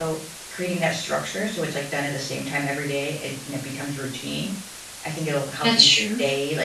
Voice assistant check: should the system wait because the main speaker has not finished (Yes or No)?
Yes